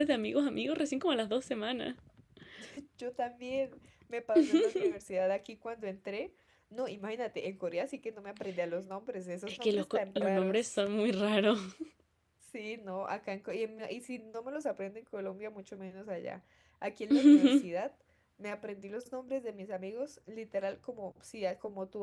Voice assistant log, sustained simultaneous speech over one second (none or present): present